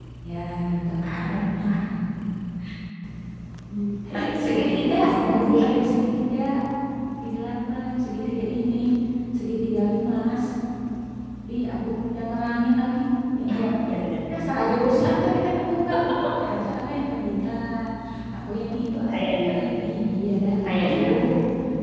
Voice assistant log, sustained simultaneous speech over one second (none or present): present